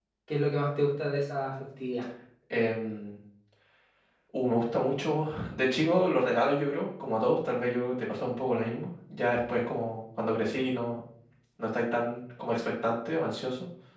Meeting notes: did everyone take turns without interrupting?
Yes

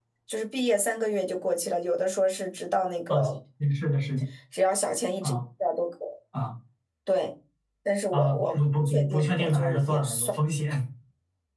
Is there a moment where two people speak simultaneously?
Yes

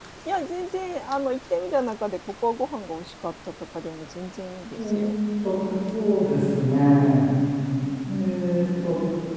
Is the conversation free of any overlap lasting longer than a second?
Yes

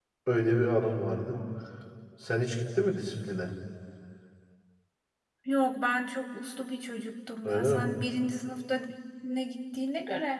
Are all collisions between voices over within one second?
Yes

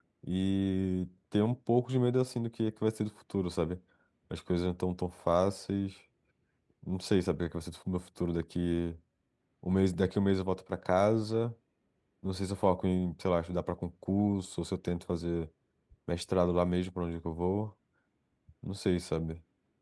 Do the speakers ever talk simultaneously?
No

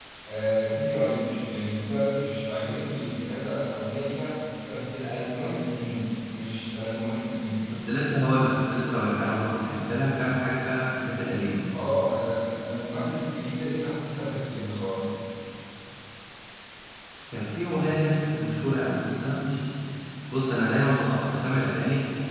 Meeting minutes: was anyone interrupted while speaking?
No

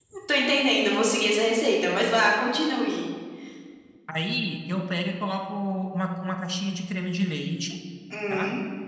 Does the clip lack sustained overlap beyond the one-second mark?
Yes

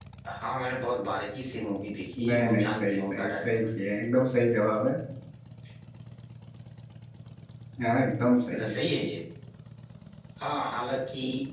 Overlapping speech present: Yes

